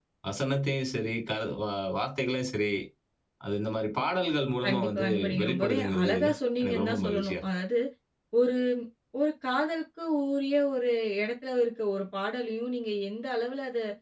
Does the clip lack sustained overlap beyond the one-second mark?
No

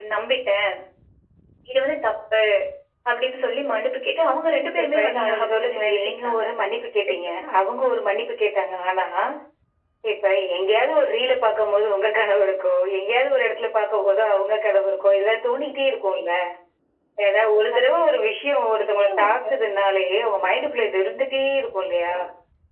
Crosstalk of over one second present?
Yes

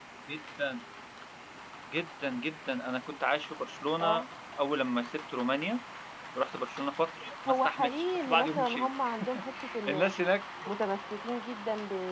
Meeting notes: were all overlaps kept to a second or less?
No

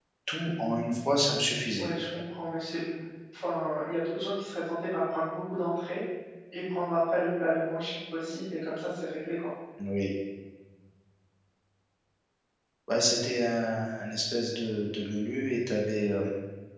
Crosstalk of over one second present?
No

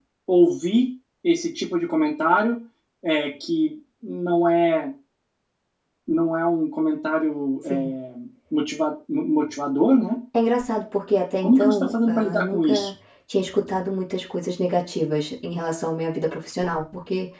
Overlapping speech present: Yes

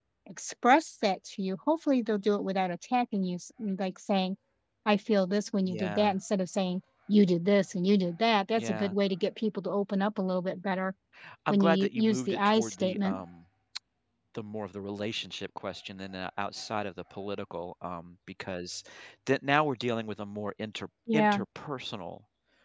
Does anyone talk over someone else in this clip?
Yes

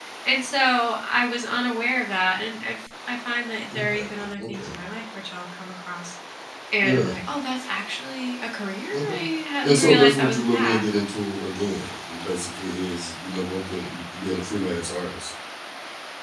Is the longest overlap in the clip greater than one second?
Yes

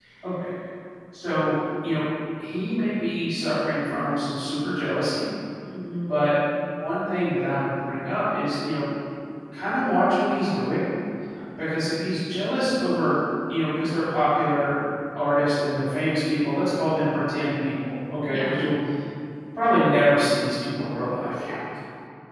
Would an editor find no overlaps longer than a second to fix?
Yes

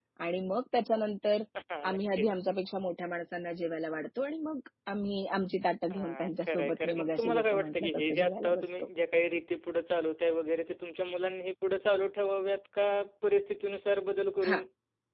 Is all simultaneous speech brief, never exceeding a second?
No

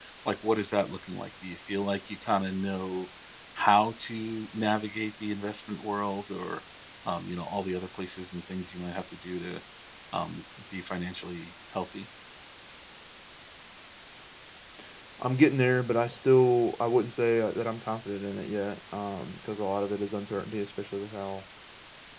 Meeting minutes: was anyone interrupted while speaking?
No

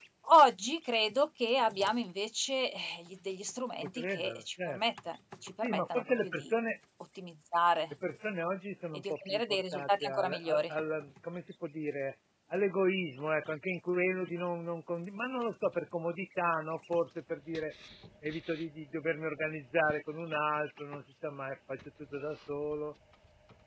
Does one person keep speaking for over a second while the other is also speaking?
Yes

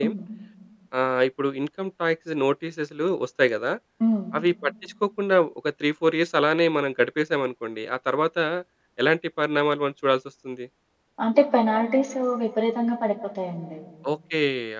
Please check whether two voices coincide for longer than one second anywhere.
No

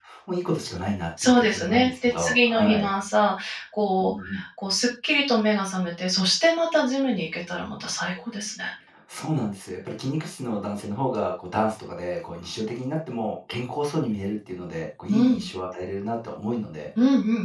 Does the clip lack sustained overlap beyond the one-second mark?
No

